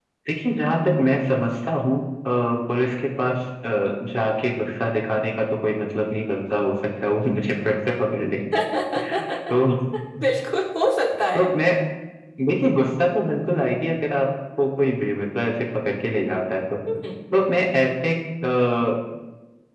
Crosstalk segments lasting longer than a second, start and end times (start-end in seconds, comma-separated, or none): none